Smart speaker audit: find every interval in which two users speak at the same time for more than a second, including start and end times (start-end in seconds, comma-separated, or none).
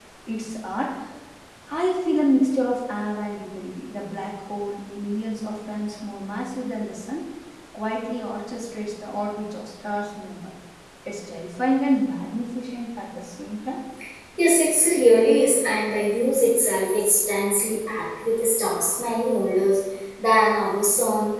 none